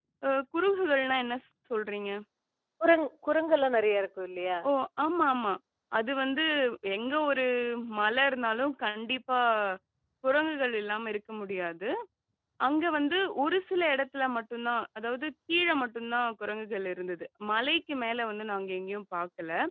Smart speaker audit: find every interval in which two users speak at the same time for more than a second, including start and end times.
none

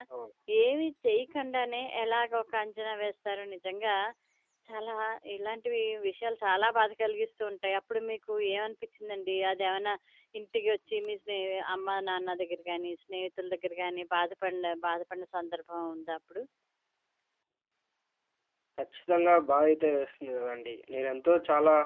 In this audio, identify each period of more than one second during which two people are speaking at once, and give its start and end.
none

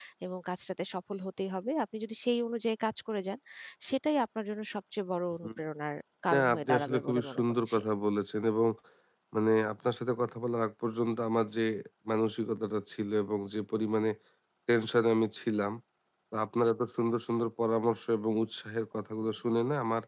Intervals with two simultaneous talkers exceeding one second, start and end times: 6.3-7.8

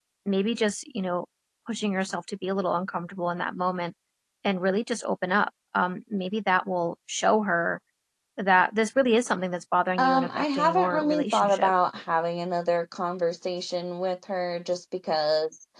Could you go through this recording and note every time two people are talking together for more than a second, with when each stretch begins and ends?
10.0-11.7

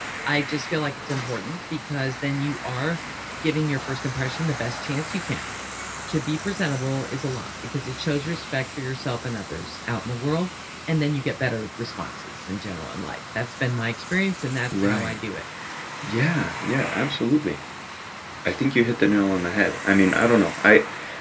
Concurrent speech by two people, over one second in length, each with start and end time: none

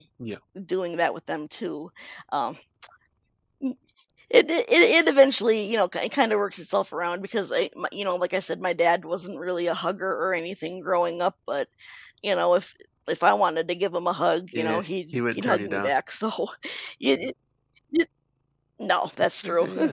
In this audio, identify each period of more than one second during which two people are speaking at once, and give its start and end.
14.6-15.9

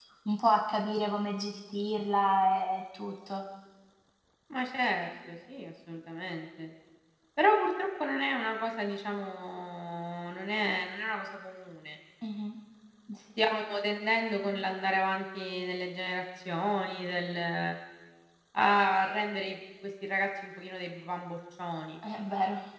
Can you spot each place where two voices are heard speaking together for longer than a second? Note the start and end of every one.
none

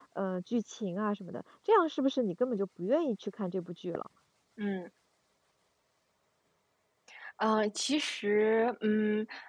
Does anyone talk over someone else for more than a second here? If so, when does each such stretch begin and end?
none

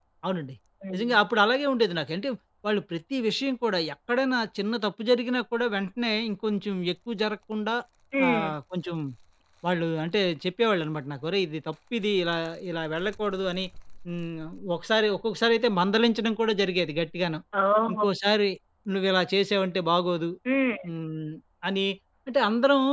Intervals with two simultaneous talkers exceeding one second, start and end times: none

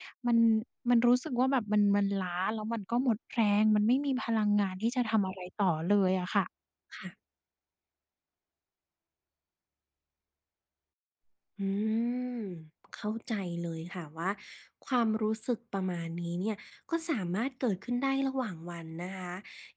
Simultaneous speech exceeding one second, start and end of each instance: none

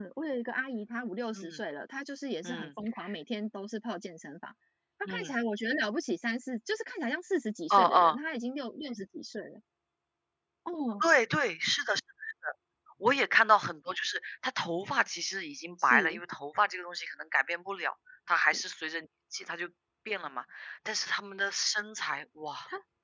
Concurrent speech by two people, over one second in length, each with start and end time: none

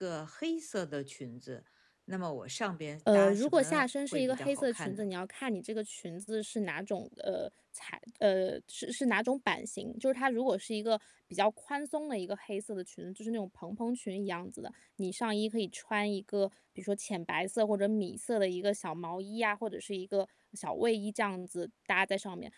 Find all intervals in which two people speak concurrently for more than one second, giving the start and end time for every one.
3.1-5.1

